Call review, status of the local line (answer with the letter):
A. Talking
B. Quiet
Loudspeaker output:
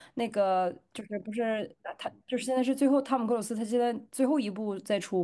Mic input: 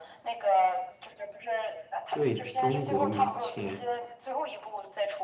A